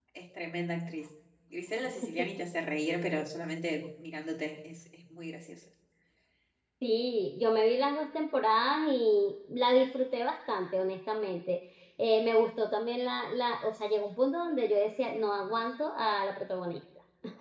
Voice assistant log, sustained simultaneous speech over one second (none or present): none